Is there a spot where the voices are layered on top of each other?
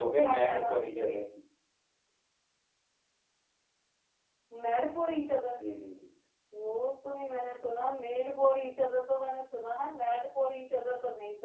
Yes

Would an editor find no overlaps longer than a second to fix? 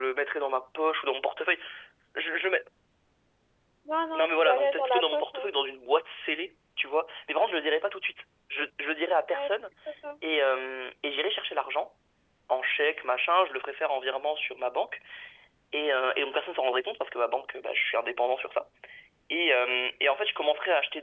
No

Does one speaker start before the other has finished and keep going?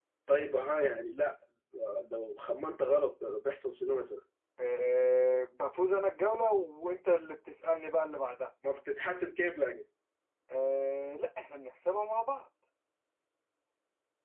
No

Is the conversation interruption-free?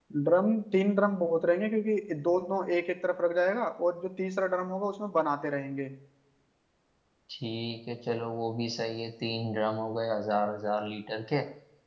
Yes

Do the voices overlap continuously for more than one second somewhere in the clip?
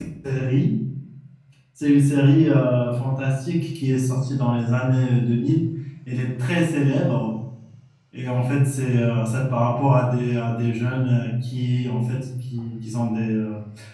No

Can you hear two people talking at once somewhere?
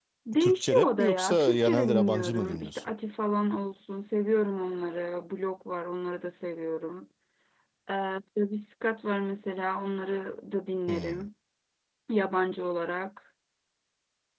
Yes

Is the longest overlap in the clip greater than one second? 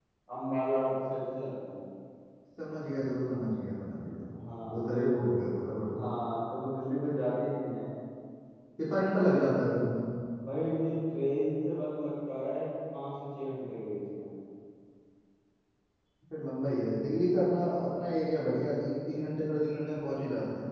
No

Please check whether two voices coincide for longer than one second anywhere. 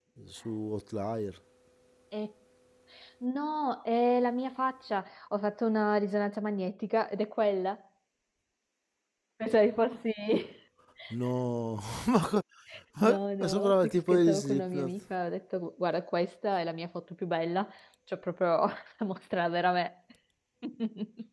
Yes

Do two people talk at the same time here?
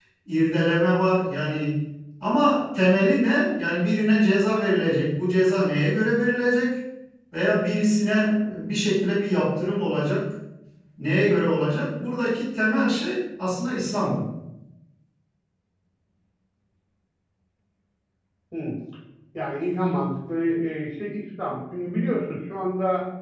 No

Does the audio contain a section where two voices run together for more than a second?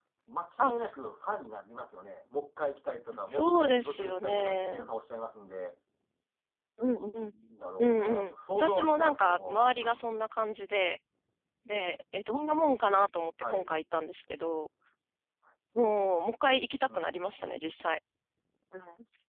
Yes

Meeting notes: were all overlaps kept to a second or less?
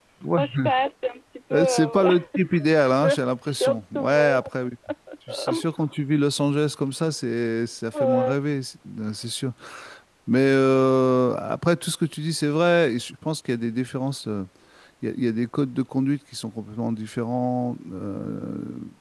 No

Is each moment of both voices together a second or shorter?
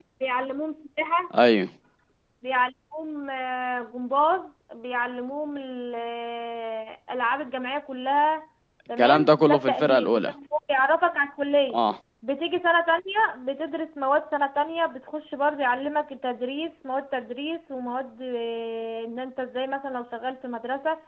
No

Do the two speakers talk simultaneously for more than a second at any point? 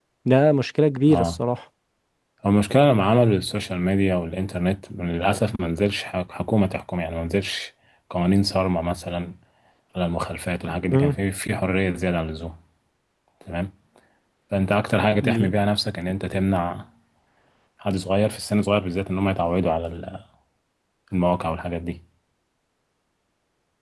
No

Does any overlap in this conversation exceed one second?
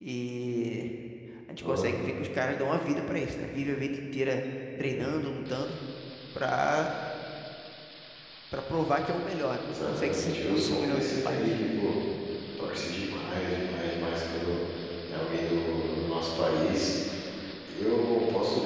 Yes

